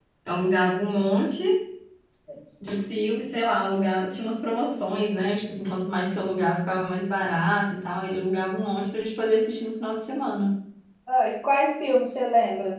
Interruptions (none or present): none